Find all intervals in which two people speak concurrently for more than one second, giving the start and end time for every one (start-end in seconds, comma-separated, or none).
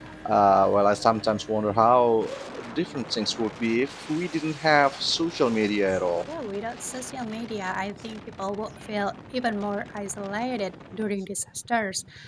none